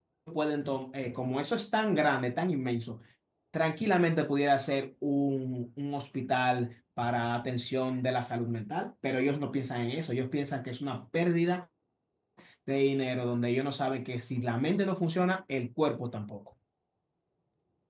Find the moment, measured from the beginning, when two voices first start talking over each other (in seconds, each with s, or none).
none